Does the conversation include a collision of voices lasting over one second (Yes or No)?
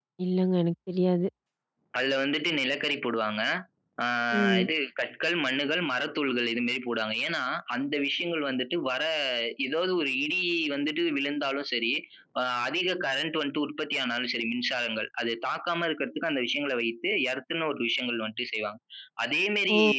No